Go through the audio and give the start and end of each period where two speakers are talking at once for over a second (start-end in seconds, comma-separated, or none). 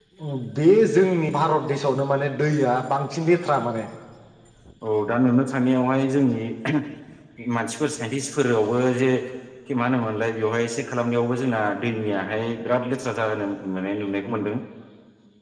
none